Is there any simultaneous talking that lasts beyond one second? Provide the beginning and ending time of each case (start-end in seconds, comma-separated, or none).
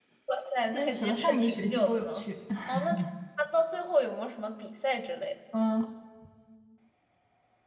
0.7-2.3